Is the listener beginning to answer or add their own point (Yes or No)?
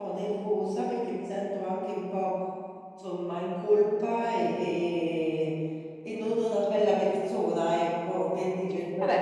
Yes